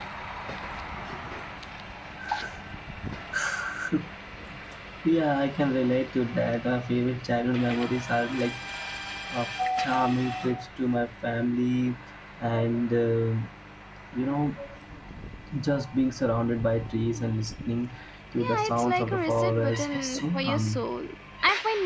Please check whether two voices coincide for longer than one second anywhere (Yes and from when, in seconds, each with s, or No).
Yes, from 18.4 s